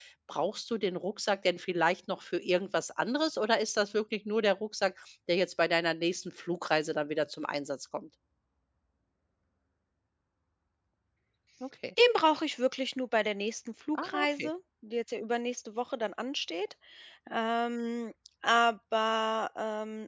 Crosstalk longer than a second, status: none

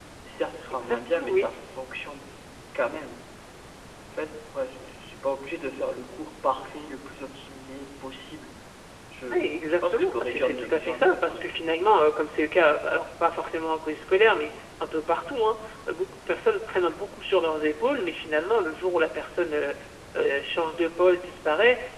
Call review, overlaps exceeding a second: present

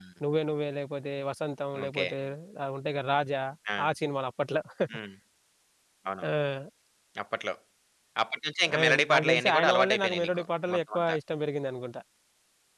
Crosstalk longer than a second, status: present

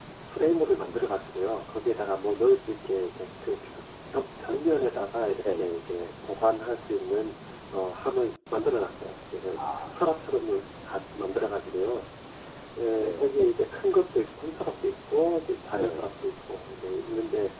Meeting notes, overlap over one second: none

